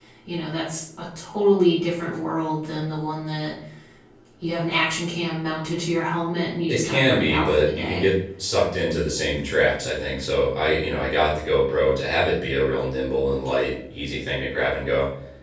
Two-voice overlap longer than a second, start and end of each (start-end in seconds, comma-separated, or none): 6.7-8.0